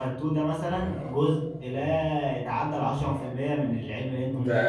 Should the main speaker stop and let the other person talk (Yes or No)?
Yes